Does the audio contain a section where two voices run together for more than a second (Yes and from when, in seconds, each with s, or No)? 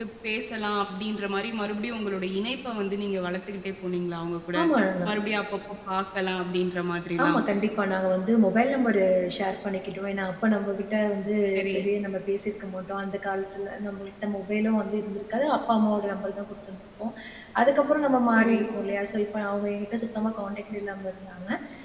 No